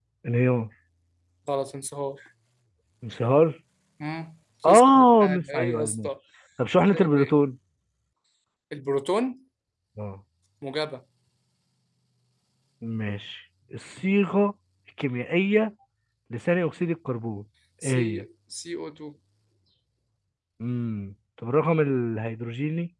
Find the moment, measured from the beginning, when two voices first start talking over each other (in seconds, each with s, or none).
4.7 s